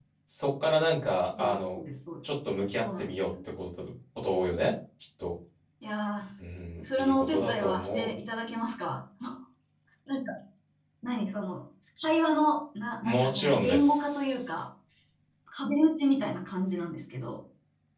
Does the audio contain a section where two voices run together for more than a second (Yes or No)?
Yes